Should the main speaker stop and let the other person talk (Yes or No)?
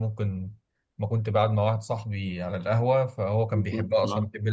No